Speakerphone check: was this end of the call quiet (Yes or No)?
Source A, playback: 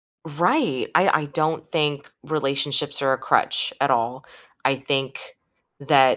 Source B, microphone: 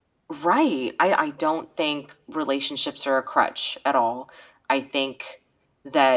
Yes